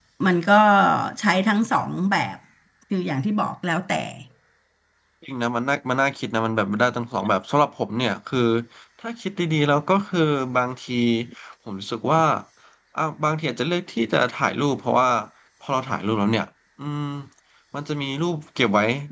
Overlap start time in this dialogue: none

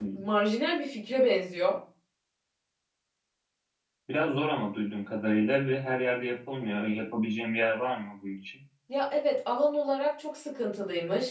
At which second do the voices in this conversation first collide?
none

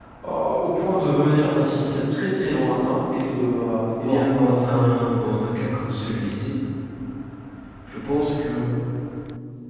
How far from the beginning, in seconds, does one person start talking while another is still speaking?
4.0 s

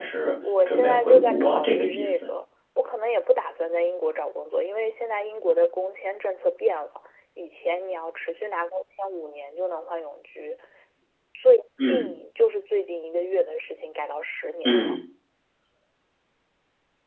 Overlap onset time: 0.7 s

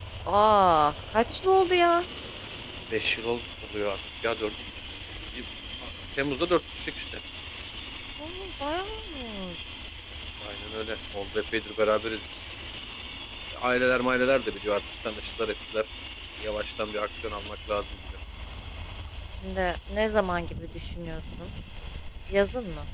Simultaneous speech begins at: none

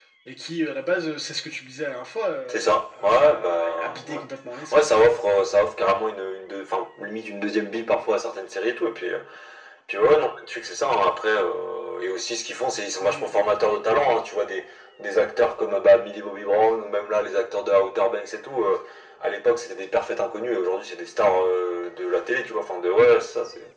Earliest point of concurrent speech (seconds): 2.5 s

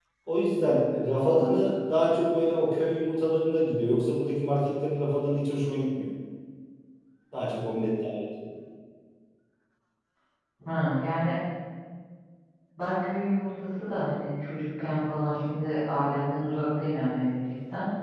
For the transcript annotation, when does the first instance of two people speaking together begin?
none

